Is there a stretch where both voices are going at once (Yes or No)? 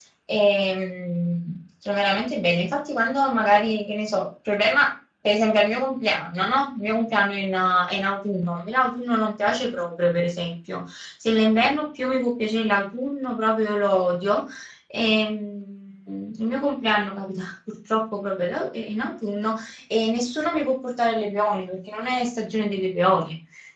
No